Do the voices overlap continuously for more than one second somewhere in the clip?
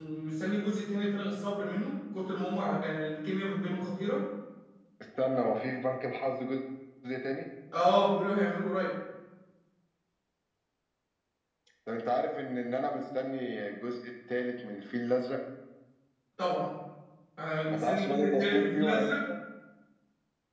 Yes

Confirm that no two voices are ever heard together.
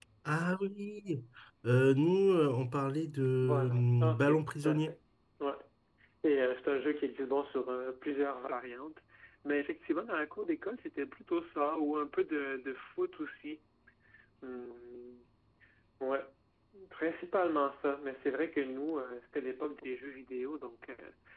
No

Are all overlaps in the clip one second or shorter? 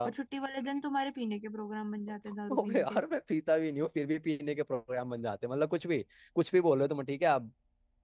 Yes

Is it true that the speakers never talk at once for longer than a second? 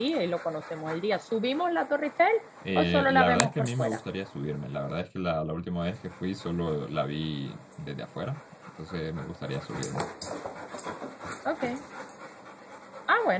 No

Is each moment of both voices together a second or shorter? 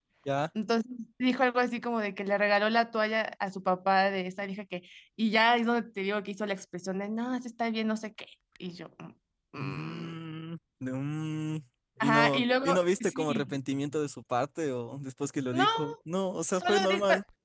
No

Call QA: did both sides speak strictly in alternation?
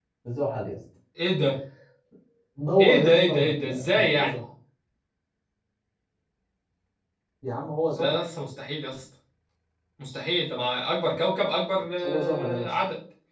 No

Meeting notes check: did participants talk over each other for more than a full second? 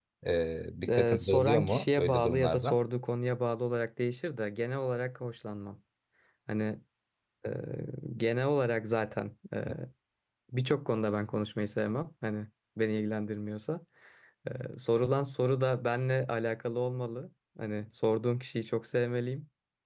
Yes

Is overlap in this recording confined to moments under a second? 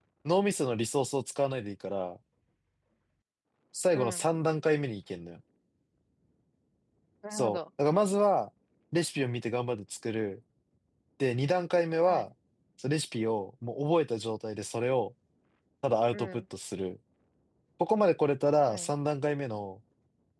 Yes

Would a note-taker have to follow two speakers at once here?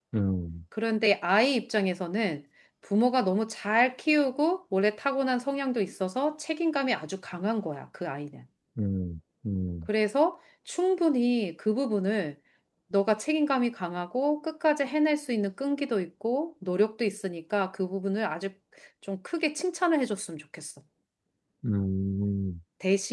No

